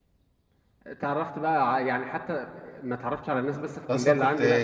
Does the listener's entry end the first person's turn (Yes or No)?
Yes